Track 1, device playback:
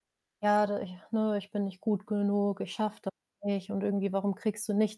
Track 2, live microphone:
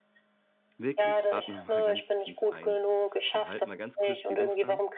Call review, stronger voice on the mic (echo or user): echo